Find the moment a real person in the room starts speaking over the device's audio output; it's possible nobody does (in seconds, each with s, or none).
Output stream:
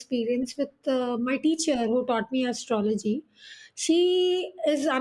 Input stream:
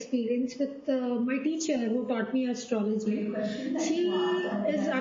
3.0 s